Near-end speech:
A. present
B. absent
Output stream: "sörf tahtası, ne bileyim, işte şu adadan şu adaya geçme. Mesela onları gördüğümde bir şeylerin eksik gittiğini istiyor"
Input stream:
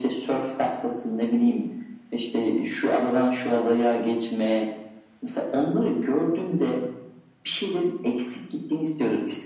B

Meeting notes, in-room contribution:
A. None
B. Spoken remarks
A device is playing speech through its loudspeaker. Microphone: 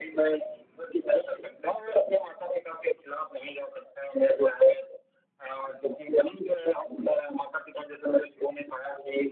A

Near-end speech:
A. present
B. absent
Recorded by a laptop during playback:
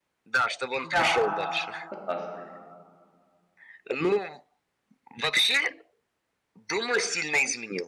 A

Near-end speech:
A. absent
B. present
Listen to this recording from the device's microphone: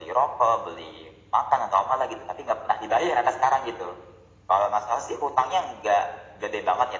A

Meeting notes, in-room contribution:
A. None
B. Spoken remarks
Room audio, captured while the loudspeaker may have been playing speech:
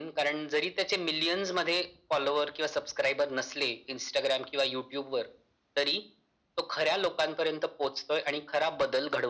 A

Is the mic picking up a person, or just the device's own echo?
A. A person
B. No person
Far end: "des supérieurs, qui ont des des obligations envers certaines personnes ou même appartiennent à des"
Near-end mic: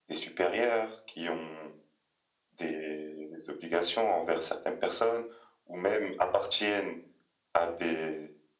B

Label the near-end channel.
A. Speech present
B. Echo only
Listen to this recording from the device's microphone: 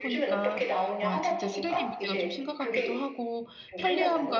A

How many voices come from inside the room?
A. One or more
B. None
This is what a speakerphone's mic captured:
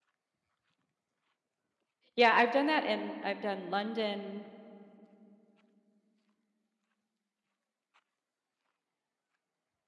A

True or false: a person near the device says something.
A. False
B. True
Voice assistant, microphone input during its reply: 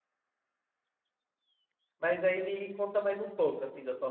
B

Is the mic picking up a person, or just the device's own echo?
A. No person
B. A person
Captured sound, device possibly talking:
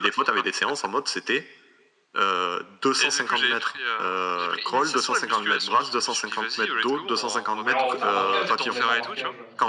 B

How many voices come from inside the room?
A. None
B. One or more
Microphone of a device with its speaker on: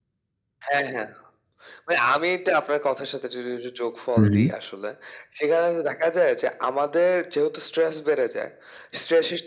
B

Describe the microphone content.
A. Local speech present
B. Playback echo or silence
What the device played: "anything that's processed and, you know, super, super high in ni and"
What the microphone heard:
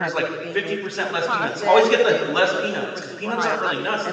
A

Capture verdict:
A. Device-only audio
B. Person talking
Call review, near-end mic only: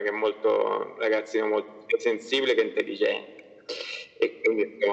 A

